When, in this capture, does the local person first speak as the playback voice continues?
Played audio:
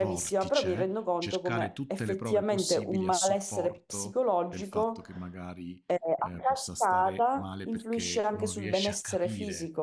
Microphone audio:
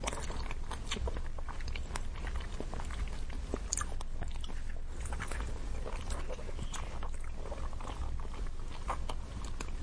none

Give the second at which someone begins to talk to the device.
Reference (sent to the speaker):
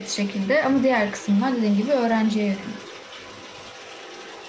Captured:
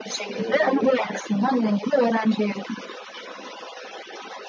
0.3 s

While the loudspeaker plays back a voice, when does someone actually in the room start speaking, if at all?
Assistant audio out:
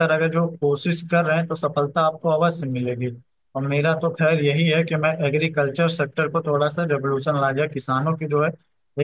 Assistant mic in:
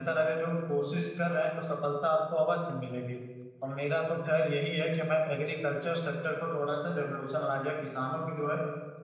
none

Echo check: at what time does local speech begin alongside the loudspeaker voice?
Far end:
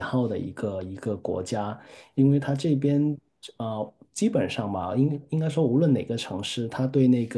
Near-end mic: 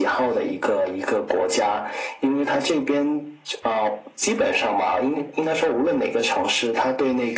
none

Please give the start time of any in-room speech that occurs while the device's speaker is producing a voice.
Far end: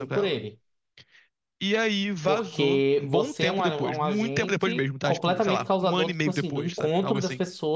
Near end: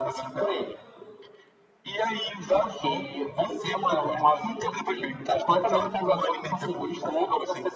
none

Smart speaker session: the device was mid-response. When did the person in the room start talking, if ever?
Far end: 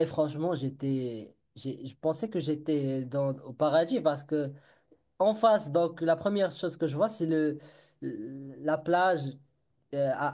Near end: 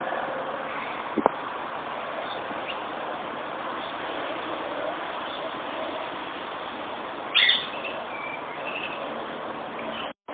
none

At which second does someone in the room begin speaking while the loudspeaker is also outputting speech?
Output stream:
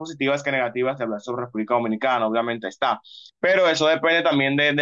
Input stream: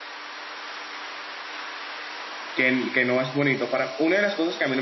2.5 s

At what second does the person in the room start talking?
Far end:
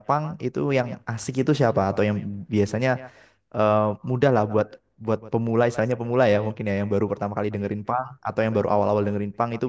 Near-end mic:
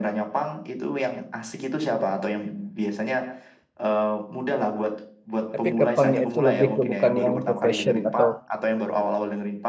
5.5 s

